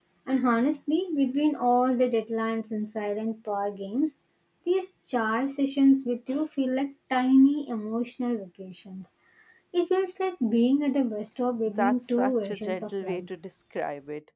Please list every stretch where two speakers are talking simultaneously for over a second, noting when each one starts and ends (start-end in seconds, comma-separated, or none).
11.8-13.3